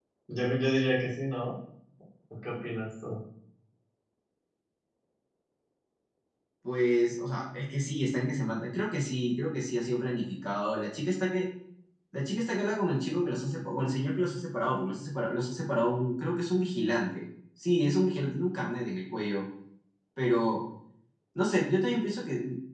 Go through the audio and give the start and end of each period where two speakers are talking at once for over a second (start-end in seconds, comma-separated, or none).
none